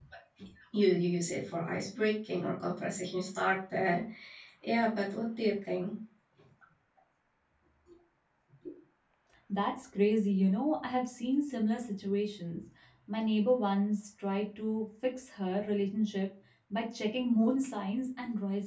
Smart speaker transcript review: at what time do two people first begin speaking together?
none

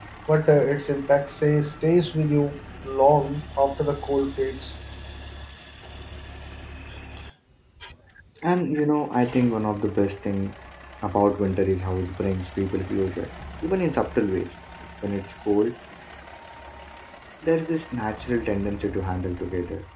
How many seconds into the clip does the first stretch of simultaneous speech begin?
none

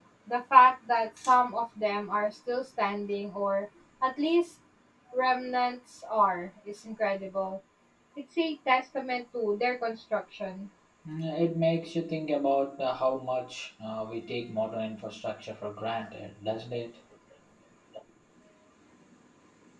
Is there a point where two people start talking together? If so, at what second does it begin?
none

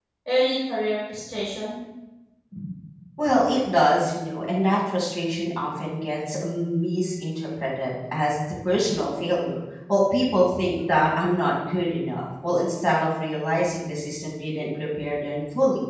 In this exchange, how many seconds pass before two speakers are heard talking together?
none

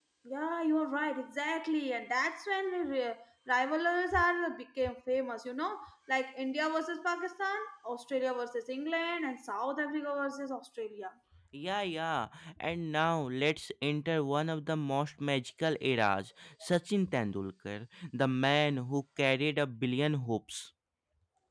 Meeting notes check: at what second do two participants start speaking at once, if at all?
none

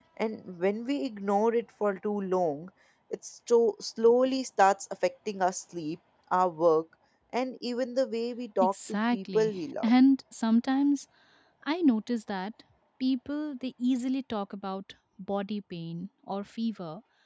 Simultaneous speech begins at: 8.6 s

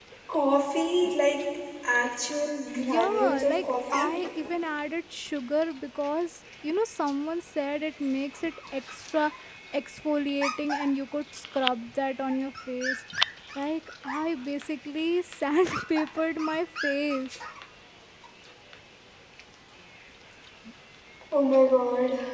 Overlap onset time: 2.8 s

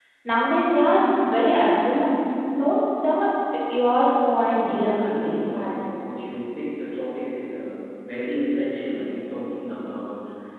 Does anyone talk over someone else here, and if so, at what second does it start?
4.6 s

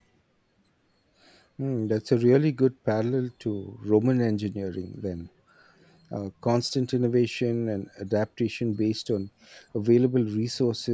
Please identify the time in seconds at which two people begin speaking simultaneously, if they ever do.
none

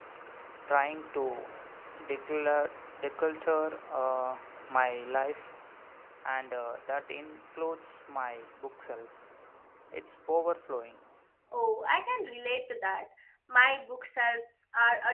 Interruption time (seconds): none

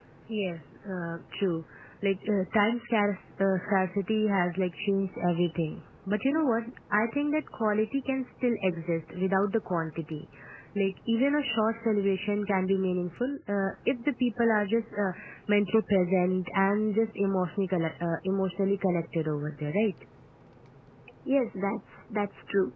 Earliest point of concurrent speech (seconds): none

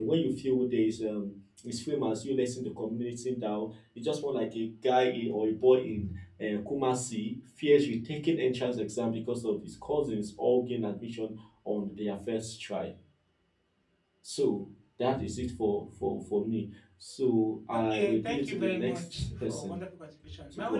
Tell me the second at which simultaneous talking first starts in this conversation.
17.8 s

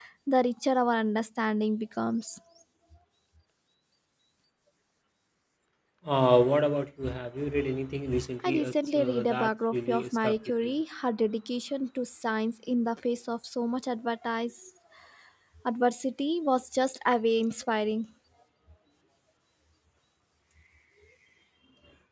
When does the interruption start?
8.4 s

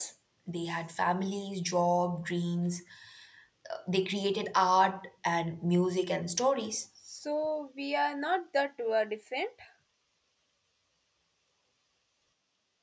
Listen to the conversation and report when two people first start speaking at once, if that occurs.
none

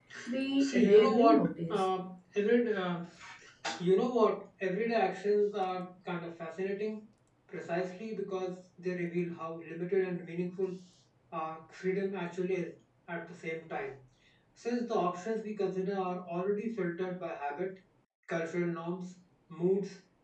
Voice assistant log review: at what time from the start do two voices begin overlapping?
0.6 s

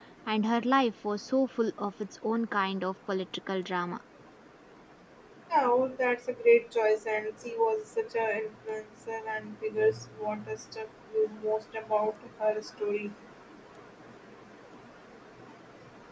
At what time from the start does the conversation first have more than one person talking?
none

